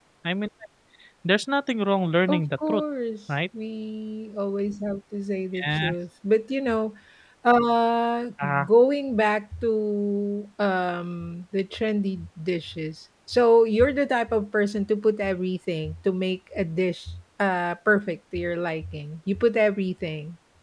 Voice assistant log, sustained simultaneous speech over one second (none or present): none